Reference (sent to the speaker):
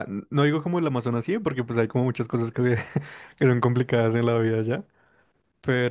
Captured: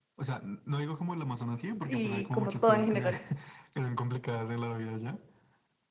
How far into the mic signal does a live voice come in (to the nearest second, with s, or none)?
2 s